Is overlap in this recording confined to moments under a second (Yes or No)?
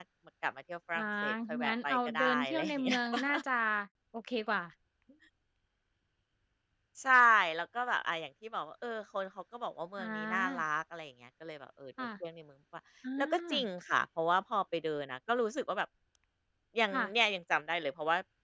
No